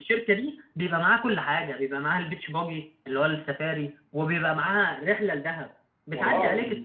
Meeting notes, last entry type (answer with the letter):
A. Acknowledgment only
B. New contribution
A